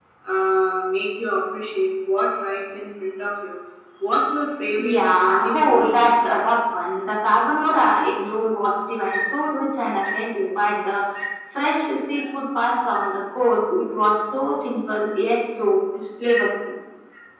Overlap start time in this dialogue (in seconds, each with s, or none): 4.7 s